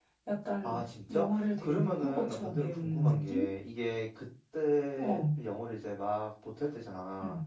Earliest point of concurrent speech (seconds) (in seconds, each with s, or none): 0.6 s